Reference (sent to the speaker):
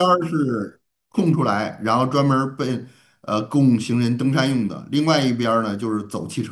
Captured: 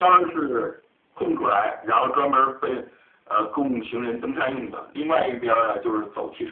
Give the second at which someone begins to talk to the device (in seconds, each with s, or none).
none